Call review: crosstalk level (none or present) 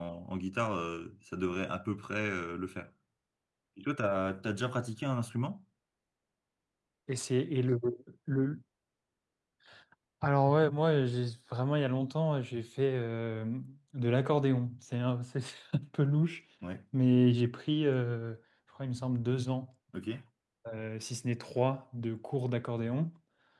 none